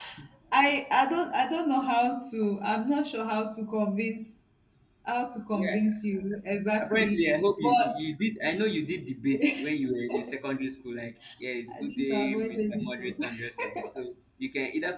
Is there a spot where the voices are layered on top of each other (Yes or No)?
Yes